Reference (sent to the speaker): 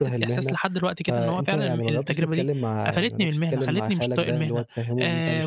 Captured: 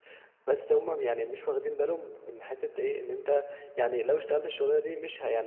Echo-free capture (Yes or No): Yes